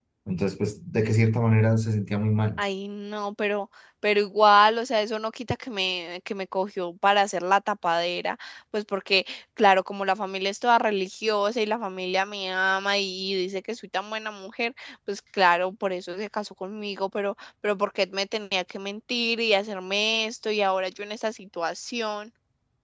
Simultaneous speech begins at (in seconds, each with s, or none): none